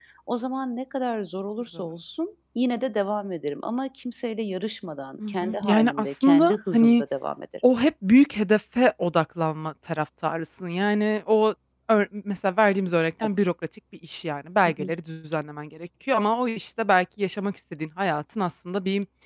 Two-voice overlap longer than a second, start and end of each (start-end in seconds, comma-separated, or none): 5.3-7.0